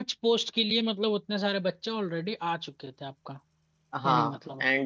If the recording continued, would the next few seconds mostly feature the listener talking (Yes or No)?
Yes